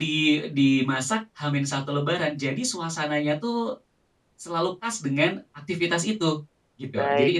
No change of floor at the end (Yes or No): No